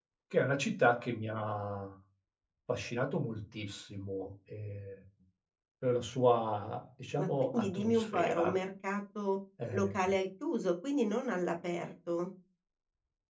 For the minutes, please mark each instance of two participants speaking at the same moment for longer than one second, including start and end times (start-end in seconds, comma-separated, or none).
7.2-8.6